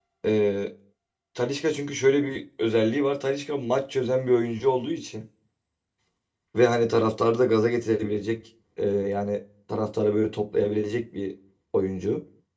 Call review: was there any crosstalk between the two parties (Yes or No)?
No